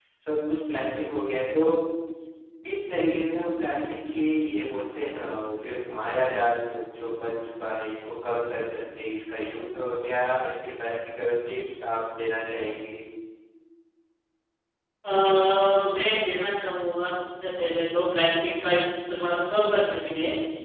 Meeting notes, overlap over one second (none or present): none